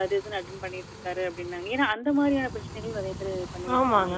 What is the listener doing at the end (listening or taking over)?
taking over